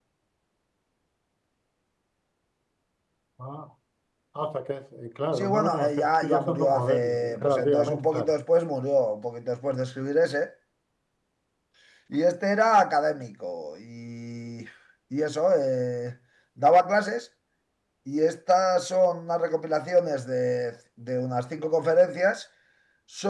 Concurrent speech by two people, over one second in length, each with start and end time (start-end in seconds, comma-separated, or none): 5.4-8.3